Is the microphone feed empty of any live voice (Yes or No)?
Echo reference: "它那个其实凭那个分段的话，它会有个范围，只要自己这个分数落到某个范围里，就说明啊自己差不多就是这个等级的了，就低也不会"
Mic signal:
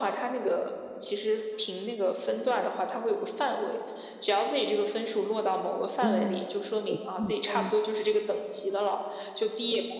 No